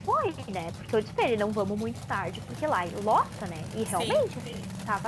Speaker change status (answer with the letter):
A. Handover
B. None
B